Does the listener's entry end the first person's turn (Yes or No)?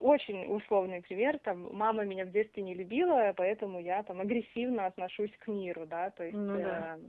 No